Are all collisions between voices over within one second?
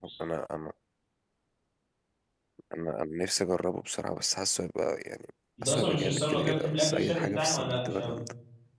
No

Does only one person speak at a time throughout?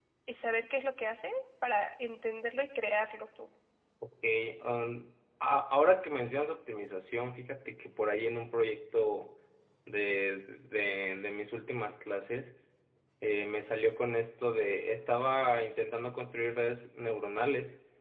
Yes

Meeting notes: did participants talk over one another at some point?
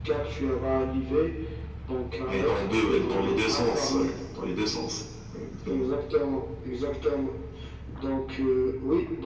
Yes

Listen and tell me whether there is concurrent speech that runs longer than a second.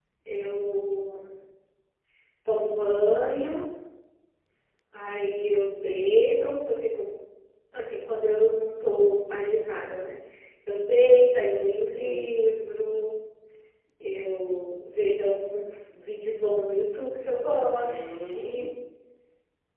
Yes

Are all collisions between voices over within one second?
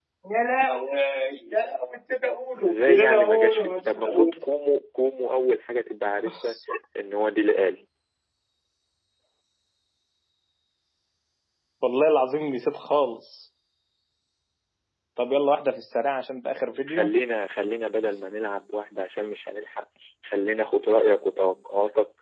No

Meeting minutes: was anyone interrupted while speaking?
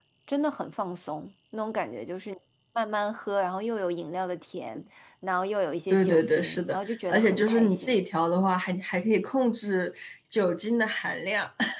Yes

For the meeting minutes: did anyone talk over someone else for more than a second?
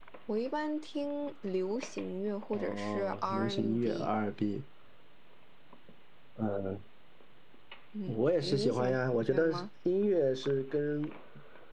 Yes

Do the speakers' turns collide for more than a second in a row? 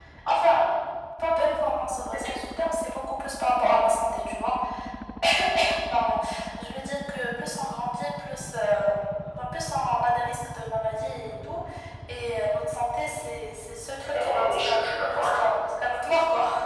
Yes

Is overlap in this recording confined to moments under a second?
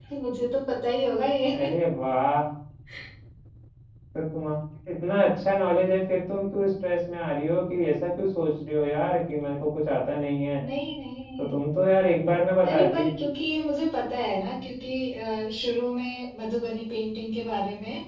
Yes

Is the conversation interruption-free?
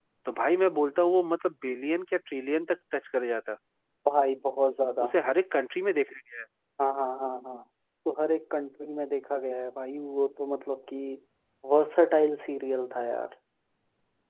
Yes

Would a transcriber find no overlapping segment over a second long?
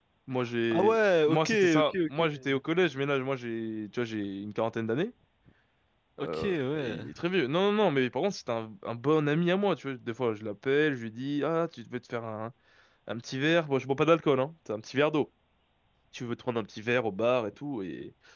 No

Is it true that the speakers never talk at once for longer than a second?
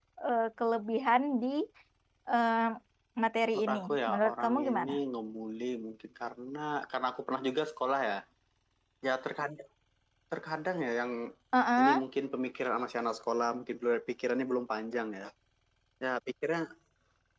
No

